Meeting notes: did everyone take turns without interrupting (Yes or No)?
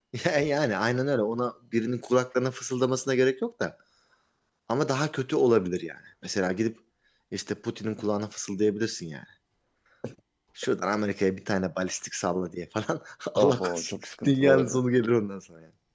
No